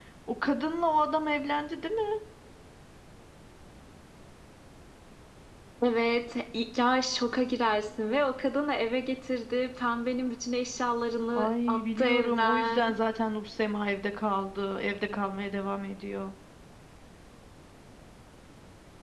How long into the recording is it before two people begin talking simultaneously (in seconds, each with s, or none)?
11.3 s